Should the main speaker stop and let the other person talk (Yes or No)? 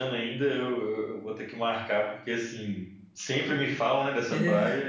No